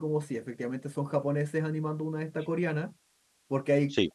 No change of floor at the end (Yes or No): Yes